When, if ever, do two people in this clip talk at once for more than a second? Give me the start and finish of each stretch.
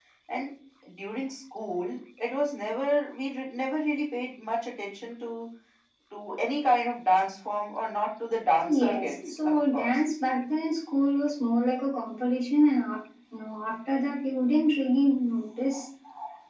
8.7-10.0

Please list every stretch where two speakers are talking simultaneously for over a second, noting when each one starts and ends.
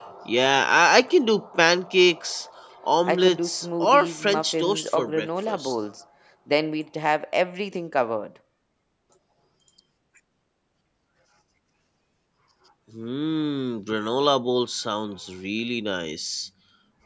3.0-5.8

